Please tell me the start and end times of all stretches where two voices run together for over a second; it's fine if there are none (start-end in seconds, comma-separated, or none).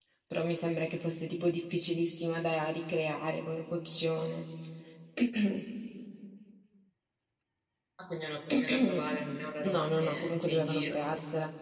9.6-11.0